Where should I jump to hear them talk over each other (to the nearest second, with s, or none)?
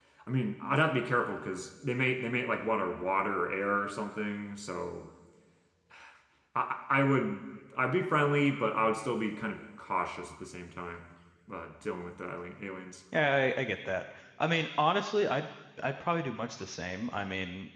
none